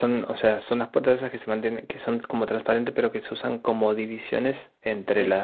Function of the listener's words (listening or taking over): listening